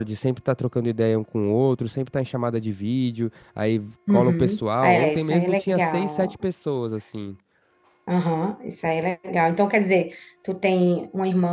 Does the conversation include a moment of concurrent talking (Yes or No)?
Yes